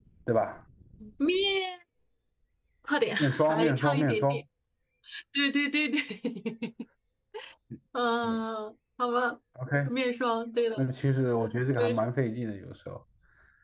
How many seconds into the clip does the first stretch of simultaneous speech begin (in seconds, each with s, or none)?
3.2 s